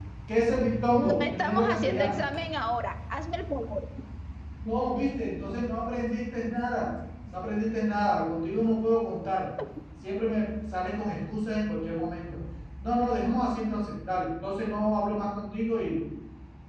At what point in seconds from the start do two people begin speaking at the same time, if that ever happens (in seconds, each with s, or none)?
0.9 s